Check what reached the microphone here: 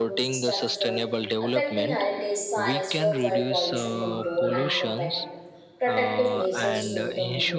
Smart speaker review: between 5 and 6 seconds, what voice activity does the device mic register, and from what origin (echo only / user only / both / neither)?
both